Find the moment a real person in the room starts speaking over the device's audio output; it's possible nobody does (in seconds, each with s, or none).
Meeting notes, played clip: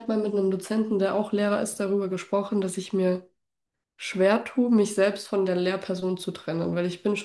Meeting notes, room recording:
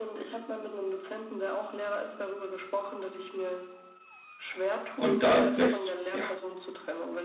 5.0 s